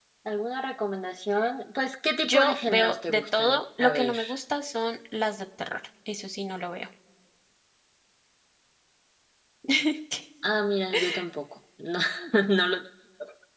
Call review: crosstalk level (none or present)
present